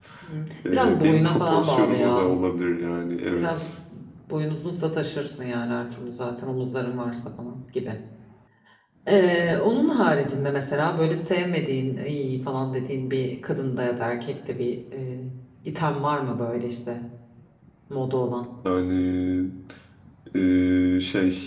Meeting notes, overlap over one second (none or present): present